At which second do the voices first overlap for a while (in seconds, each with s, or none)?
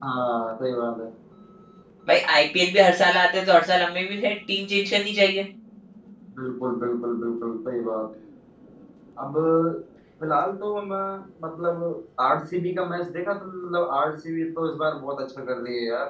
none